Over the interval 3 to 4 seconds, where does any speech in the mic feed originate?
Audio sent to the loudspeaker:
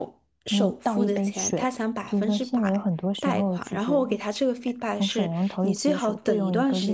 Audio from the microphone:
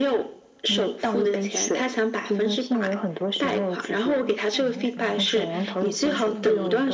echo only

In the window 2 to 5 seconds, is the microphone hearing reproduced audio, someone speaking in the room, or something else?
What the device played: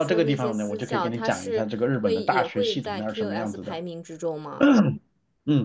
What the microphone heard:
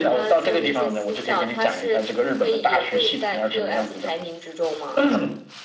echo only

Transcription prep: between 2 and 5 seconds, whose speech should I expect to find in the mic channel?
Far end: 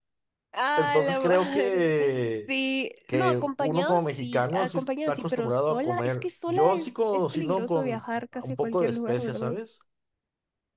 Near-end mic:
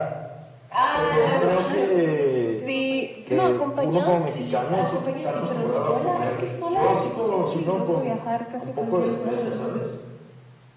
both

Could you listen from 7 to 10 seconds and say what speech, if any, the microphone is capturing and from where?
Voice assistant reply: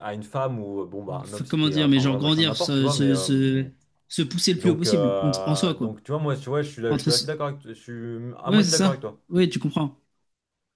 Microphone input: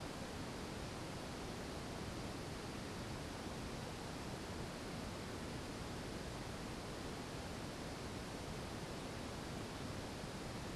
neither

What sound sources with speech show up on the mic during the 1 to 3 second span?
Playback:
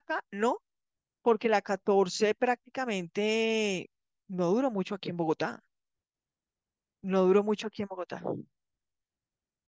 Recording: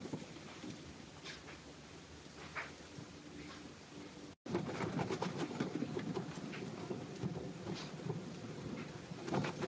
neither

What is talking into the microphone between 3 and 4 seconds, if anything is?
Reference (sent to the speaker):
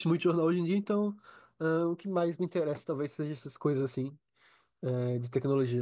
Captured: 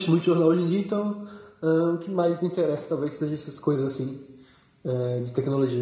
echo only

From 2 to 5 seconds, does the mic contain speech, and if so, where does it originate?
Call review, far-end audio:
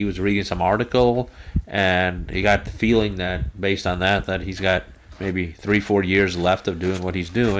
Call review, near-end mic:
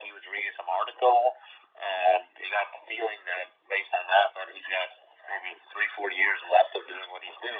echo only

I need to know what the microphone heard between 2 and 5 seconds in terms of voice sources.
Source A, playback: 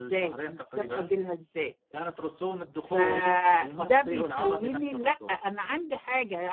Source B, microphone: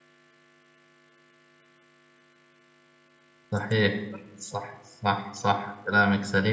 user only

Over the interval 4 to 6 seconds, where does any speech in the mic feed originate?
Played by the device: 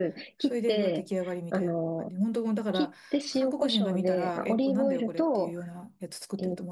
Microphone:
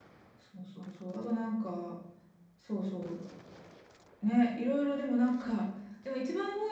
user only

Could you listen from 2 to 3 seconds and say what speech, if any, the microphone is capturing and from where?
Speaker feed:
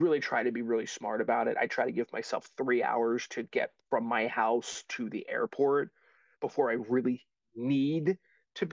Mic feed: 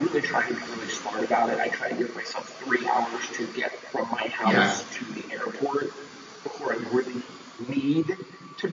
echo only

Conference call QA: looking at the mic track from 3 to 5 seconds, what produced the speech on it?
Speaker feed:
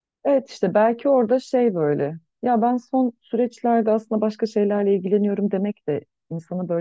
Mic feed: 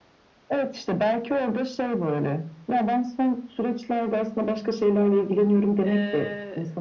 echo only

